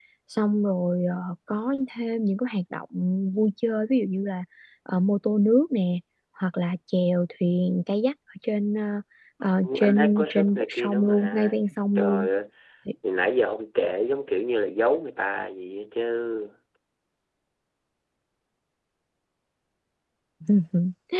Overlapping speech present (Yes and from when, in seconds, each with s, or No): Yes, from 9.6 s